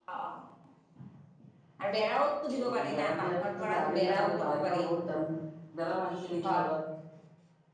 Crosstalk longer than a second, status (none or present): present